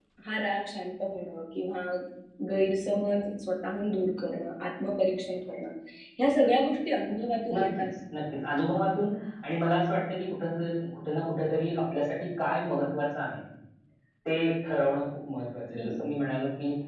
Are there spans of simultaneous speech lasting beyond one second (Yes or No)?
No